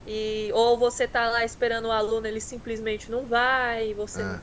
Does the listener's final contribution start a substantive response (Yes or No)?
No